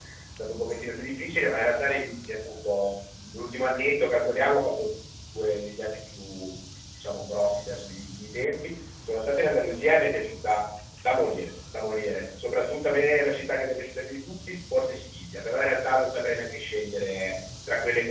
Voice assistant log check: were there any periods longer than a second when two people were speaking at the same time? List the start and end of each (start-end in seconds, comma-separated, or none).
none